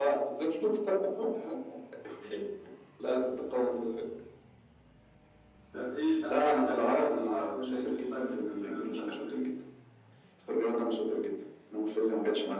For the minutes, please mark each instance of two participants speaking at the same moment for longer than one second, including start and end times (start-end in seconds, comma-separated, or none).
6.3-9.5